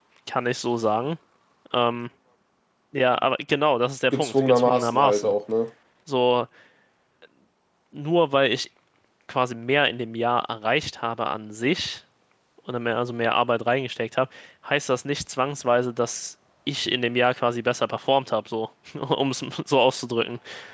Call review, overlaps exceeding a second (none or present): present